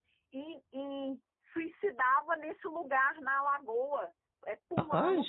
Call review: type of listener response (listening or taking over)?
listening